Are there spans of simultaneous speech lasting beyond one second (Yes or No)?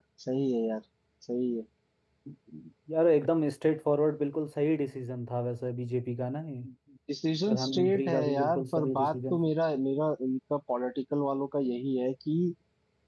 Yes